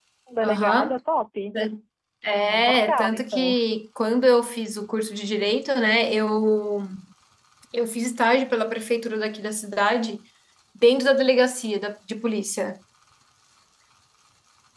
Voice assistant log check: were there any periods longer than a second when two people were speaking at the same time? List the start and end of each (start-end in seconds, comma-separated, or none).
2.3-3.5